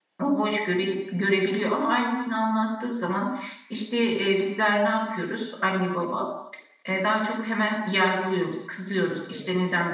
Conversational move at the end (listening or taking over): listening